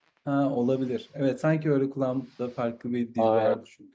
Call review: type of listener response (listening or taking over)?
taking over